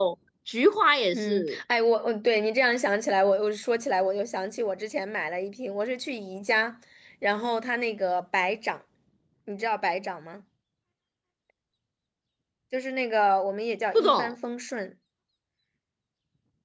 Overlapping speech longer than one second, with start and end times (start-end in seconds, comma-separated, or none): none